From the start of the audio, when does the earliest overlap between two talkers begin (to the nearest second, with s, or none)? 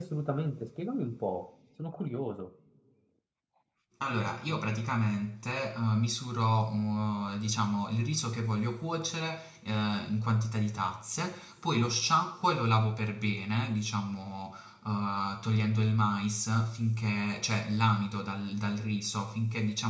none